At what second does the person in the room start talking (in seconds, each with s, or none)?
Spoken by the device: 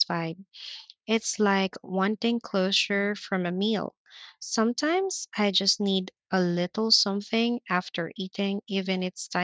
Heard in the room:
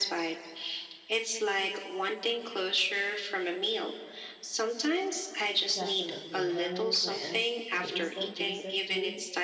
5.7 s